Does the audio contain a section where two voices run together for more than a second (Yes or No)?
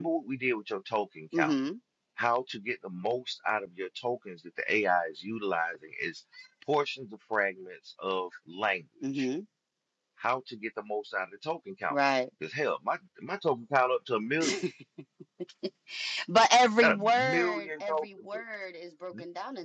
Yes